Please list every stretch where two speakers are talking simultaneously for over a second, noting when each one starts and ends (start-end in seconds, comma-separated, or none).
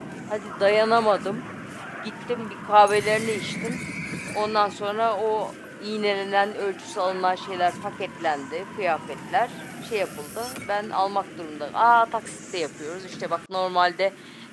none